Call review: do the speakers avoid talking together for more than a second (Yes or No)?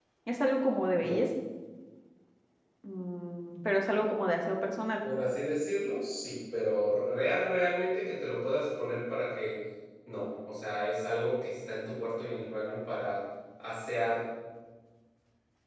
Yes